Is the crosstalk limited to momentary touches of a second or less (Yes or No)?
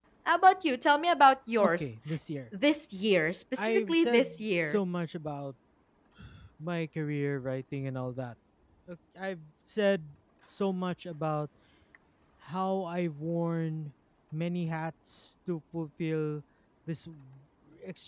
No